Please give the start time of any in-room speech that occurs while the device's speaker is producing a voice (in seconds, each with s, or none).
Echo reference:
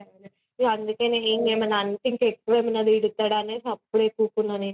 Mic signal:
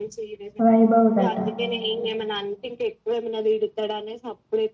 0.6 s